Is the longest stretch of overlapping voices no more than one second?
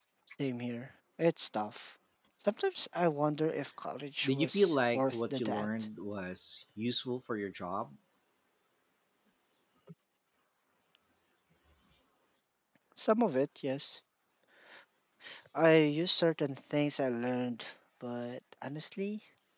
No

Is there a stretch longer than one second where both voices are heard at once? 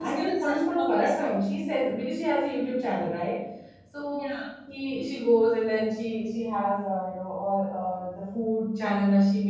Yes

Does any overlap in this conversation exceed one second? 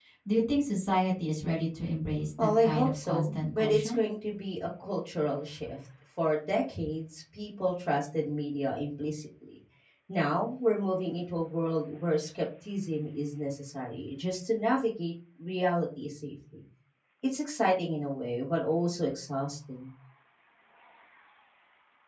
Yes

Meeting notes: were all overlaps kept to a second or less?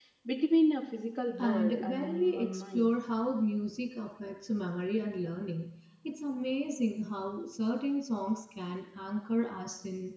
No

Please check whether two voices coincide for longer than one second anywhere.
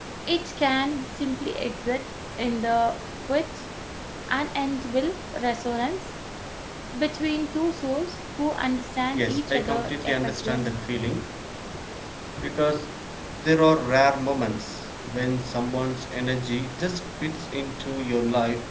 Yes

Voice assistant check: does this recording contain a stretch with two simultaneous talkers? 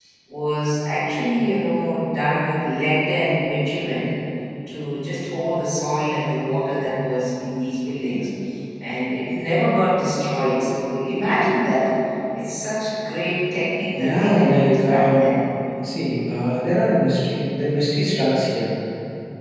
Yes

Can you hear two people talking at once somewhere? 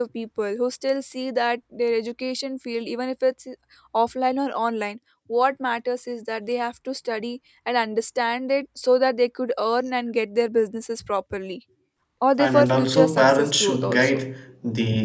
Yes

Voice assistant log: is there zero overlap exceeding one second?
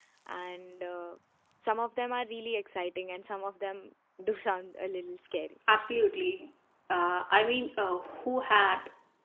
Yes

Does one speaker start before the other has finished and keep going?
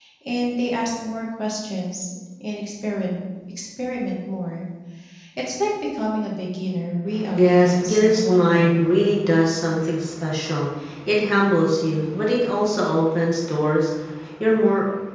Yes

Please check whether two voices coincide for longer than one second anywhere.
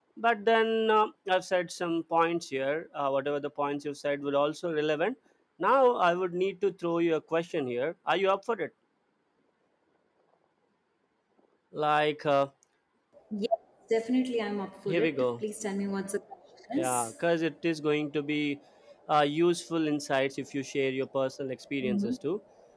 No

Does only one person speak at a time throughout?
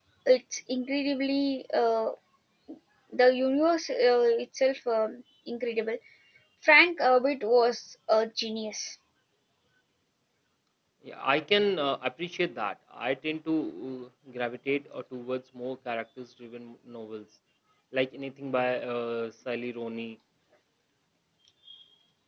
Yes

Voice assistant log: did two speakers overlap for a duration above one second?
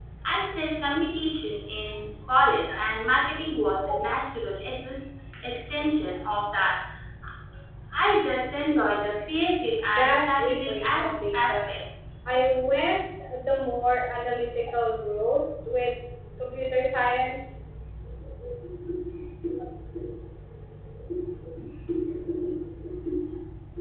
Yes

